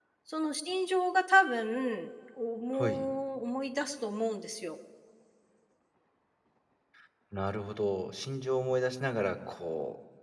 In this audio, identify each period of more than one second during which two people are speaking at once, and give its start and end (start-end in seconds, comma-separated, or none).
none